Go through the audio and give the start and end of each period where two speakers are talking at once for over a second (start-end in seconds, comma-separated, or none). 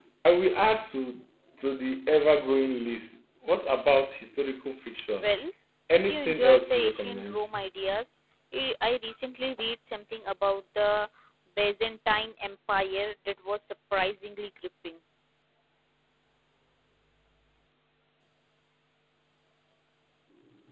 6.1-7.5